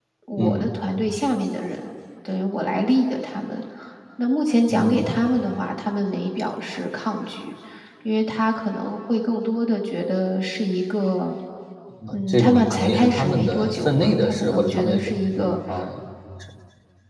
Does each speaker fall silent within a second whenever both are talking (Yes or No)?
No